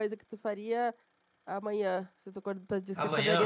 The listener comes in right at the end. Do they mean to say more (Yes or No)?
Yes